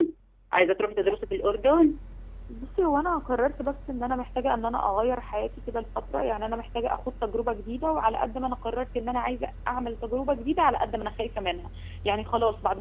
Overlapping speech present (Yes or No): No